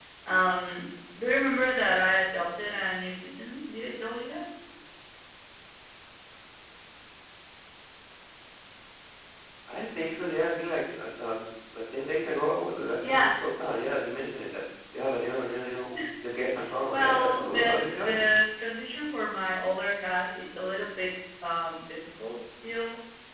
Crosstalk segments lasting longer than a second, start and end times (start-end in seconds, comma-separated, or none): 16.9-18.2